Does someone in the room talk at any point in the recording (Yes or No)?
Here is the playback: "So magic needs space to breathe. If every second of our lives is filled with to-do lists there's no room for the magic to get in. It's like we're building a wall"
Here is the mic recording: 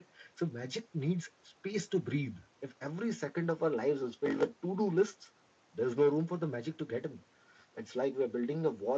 No